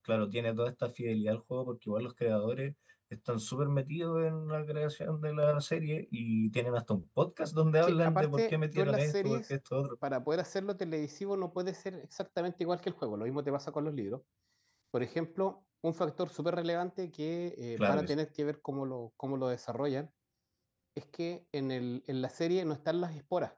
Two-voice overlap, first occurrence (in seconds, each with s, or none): 7.8 s